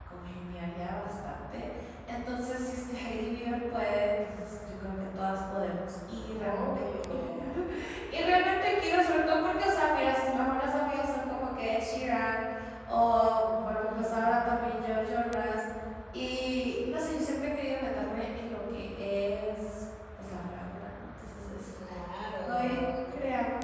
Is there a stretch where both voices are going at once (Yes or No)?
Yes